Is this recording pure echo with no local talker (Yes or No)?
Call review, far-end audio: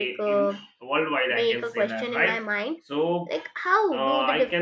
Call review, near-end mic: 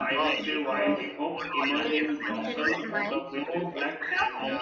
No